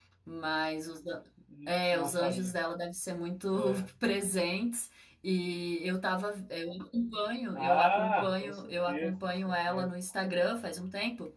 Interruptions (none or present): present